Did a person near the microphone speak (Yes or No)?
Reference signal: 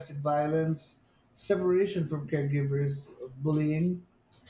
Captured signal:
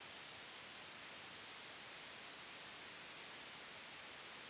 No